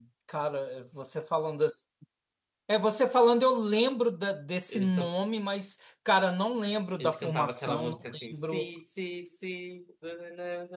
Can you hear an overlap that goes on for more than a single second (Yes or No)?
Yes